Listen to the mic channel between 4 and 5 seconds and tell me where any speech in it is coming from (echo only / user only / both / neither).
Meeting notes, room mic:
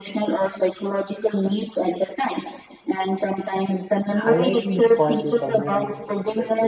both